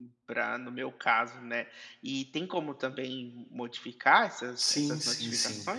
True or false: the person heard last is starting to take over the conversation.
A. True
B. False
A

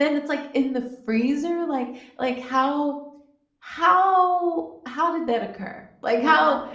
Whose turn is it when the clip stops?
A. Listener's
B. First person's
B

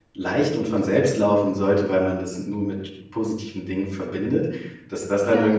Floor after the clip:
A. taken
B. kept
B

